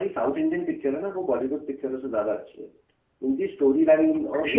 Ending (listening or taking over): listening